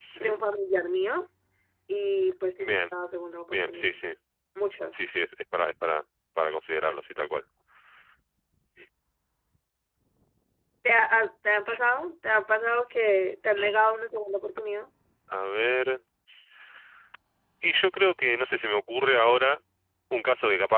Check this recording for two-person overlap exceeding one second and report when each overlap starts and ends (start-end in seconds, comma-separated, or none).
none